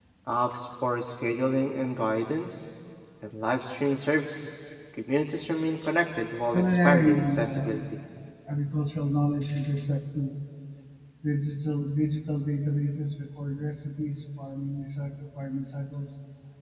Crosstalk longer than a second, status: present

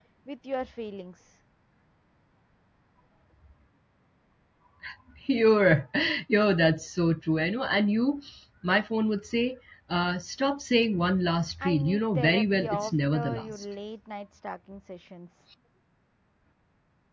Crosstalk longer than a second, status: present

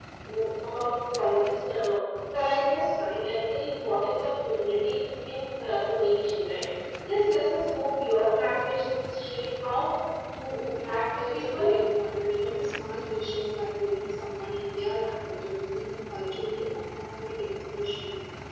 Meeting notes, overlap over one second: none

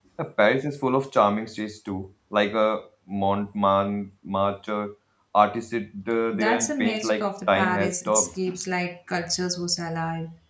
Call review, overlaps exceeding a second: present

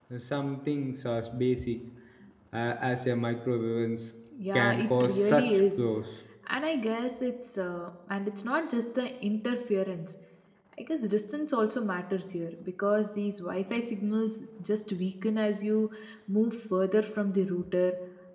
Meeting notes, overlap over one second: present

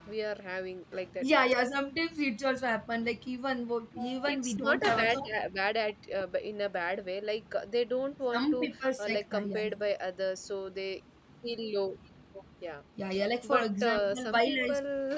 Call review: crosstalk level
present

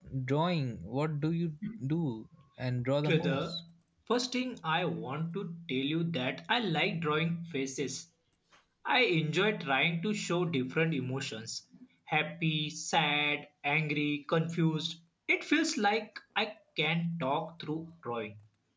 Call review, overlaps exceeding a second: none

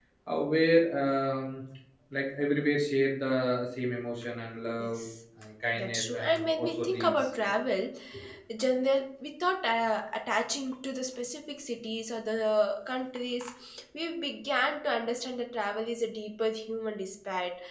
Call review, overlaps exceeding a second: present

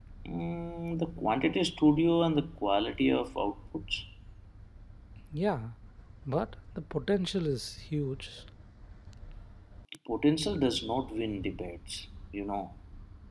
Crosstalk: none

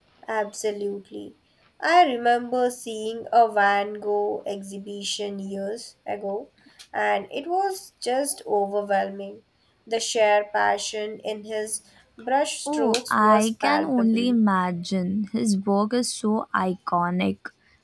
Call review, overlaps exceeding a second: present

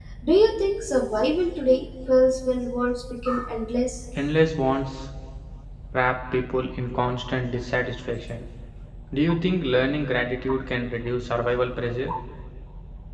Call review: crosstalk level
none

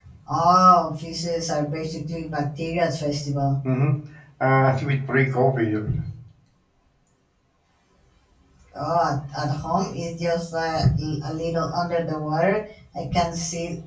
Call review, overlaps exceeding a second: none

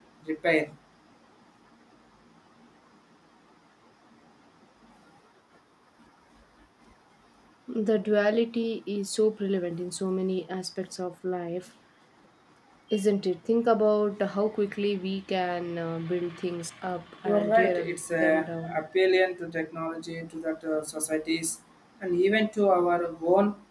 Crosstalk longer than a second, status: present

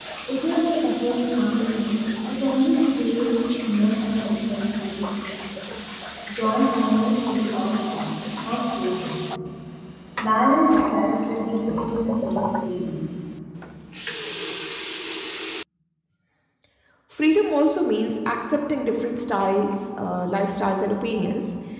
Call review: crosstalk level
none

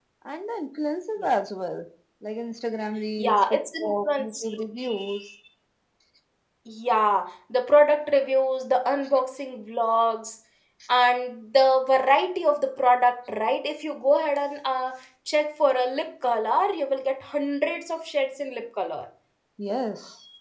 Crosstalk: present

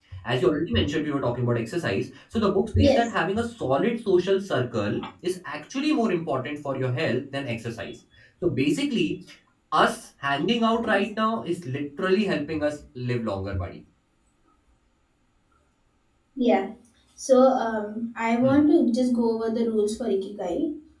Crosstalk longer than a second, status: none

